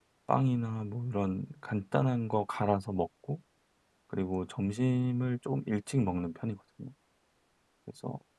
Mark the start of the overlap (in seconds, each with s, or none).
none